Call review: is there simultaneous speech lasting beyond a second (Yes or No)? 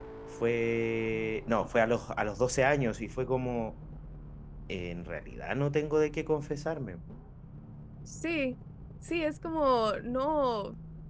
No